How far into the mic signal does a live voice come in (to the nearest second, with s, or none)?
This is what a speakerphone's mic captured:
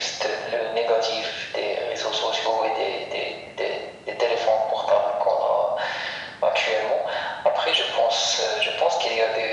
none